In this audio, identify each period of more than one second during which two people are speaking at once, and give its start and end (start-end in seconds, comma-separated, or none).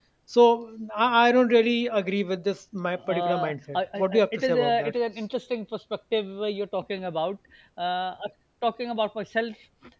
3.1-4.9